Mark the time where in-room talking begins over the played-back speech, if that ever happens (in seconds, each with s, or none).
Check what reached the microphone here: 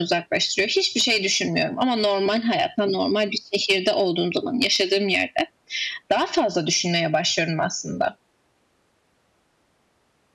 none